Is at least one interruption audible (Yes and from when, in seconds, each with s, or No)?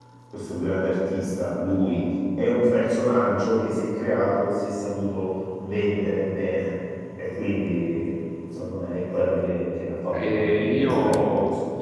Yes, from 10.1 s